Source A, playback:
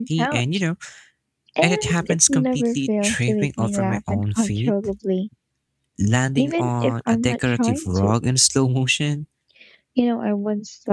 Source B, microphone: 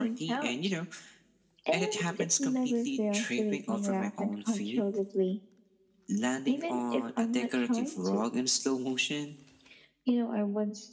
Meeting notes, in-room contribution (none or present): none